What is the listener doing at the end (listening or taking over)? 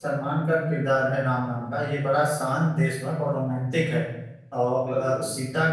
listening